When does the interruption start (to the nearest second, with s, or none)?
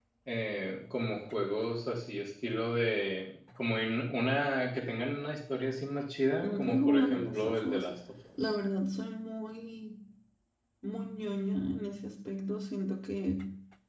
6 s